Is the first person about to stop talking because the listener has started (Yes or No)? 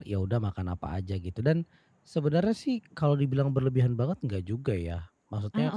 No